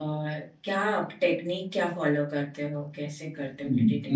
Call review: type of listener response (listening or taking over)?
taking over